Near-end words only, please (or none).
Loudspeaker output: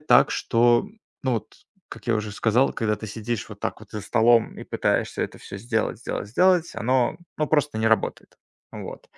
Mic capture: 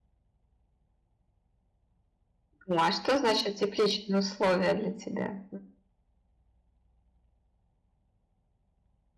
О, а что значит тепличные условия для тебя?